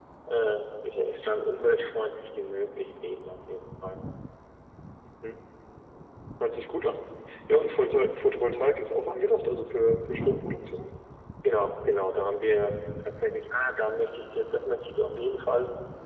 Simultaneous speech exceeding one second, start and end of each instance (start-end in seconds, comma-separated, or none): none